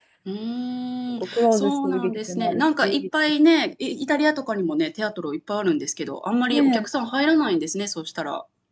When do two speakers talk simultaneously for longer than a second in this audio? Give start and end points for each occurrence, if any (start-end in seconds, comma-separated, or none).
1.1-3.1